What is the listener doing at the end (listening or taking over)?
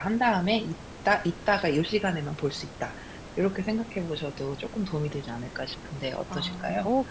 taking over